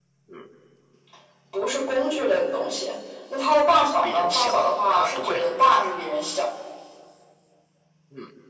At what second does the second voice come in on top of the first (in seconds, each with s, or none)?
4.0 s